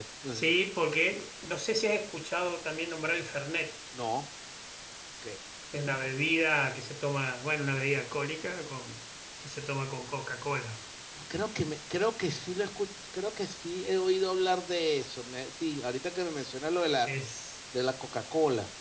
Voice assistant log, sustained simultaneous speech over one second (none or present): none